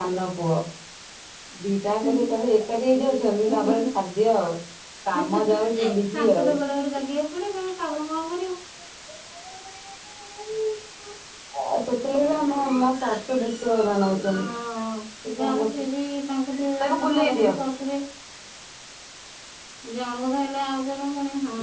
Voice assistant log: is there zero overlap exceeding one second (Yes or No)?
No